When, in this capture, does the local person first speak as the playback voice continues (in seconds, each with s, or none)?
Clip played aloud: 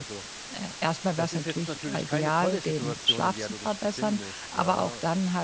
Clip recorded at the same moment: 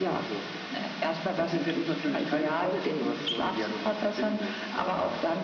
none